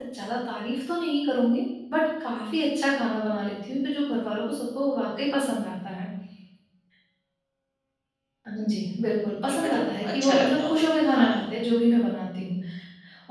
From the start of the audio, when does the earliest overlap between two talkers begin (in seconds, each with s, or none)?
9.5 s